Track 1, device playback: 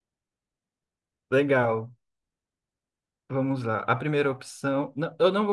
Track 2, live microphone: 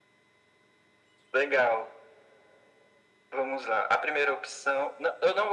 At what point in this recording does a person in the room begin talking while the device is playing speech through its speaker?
none

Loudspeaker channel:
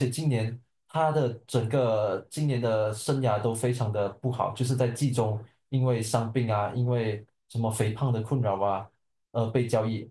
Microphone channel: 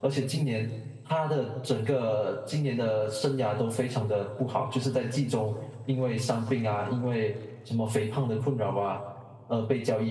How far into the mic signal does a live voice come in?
none

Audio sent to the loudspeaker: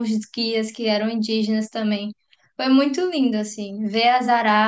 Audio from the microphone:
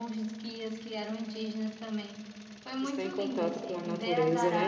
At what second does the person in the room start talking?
3 s

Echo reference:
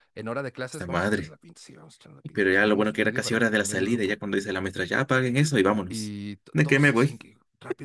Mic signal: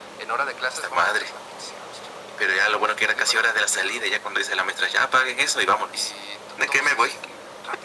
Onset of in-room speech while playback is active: none

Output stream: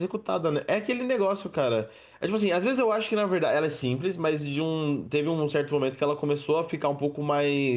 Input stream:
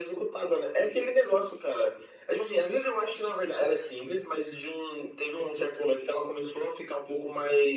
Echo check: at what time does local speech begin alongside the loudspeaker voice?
none

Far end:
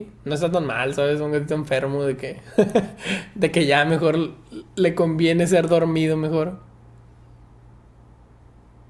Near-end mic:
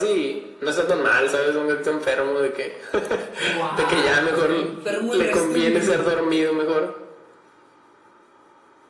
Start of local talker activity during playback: 3 s

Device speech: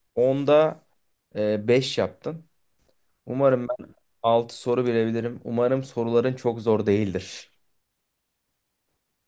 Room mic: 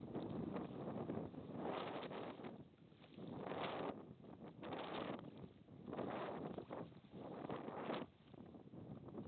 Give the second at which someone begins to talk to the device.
none

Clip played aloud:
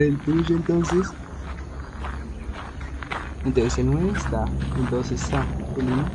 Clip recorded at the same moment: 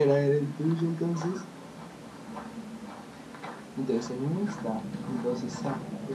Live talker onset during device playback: none

